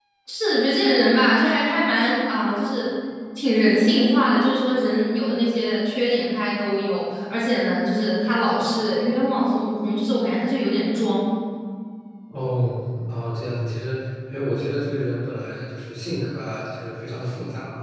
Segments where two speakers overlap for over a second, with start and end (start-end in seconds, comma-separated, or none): none